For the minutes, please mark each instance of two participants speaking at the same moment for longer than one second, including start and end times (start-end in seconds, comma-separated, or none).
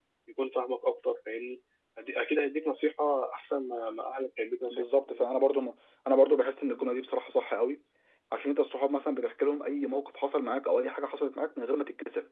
none